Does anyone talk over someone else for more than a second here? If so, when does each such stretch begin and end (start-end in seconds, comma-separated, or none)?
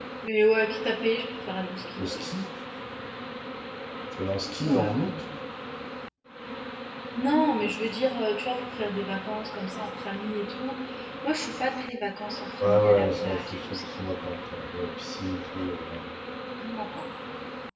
12.6-14.3